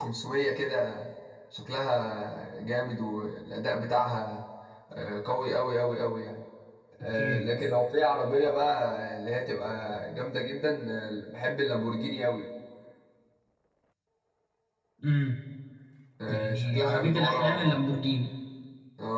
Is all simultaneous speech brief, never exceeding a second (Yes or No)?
No